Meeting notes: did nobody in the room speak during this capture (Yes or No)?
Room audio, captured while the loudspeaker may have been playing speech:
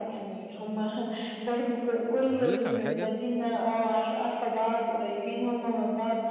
No